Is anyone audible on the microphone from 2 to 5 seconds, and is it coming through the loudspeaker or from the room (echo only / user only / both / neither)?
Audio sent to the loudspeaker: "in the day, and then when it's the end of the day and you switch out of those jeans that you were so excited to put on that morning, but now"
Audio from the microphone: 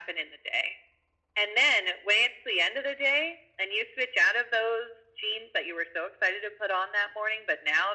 echo only